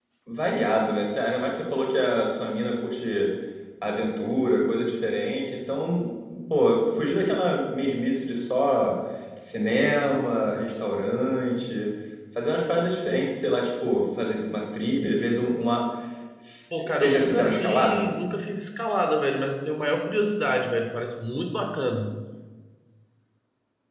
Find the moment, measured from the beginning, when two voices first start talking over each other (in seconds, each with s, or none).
16.8 s